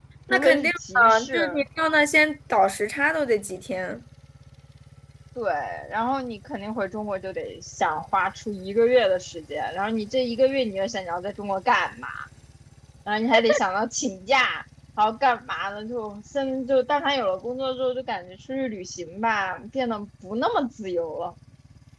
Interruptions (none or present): present